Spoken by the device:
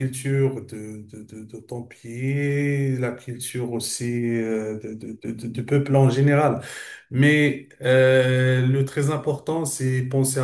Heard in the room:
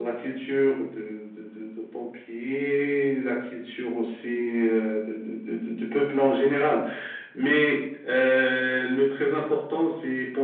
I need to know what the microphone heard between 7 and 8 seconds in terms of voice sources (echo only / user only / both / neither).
echo only